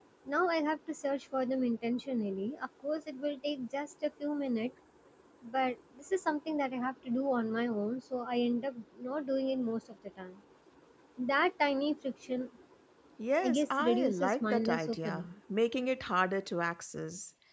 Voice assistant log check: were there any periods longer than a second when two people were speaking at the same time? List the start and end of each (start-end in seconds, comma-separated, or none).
13.4-15.3